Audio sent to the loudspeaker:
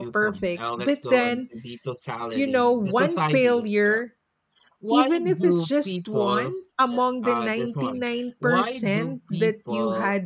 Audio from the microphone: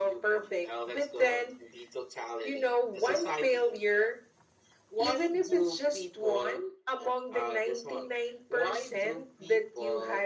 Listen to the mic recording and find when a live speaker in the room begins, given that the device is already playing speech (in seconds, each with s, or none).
none